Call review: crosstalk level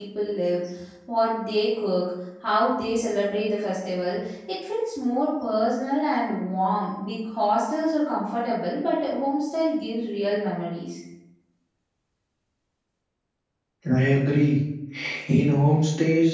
none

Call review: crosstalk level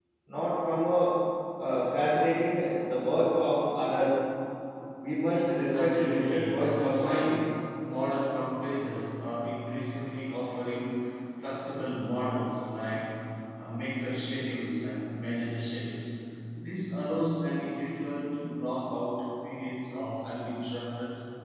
present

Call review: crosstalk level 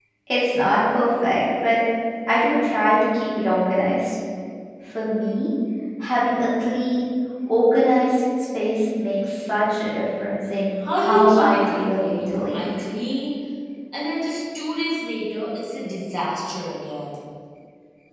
present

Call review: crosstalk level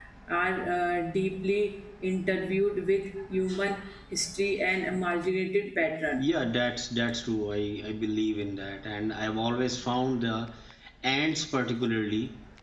none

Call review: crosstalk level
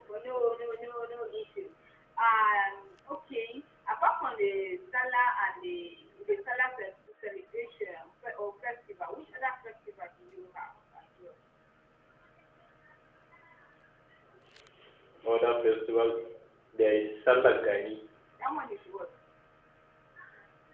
none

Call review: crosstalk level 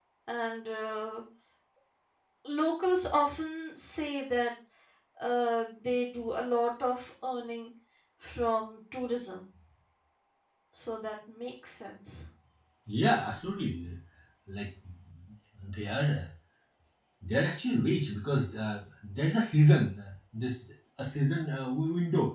none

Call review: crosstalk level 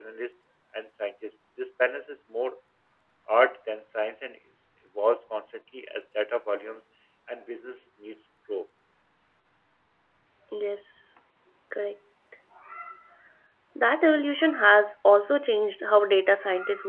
none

